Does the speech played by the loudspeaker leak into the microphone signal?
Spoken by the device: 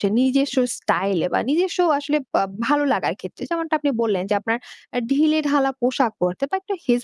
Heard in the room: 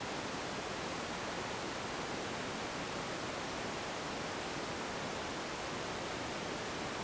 No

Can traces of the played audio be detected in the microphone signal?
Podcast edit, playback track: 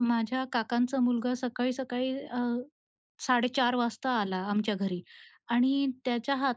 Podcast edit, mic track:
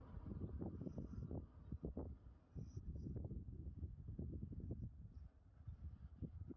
No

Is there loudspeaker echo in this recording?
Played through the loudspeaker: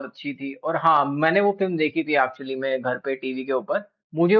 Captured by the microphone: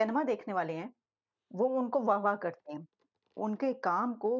No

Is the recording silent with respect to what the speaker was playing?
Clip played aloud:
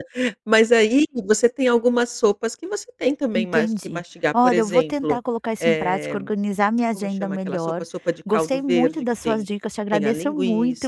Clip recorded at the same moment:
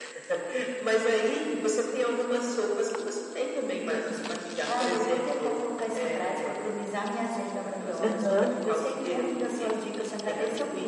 No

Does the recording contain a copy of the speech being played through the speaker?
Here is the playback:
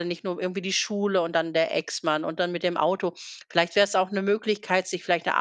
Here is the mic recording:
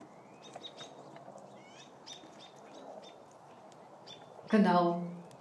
No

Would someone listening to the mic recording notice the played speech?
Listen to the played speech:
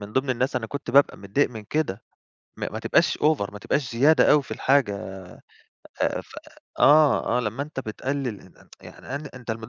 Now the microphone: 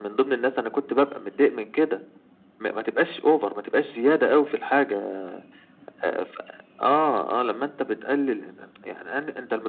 Yes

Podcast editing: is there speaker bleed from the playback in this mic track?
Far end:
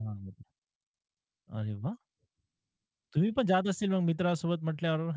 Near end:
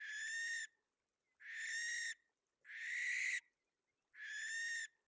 No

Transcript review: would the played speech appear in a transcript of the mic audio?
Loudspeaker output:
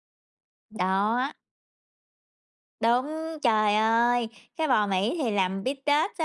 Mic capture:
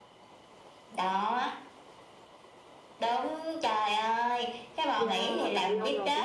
Yes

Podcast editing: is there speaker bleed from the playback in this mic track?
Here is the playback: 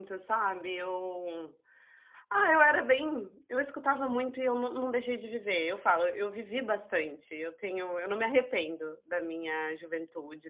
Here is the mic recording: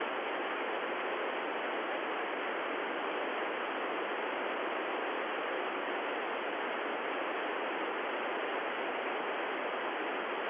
No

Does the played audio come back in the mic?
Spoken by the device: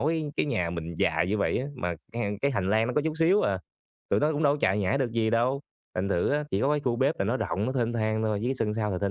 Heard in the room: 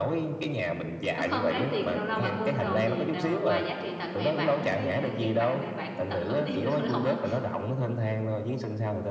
Yes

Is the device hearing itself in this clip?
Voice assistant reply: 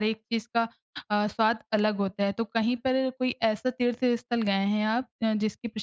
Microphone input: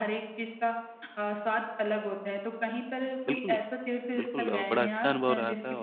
Yes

